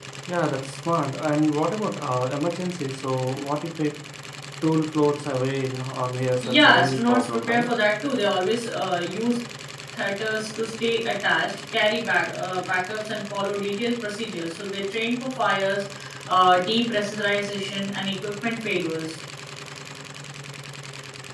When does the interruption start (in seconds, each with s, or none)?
6.4 s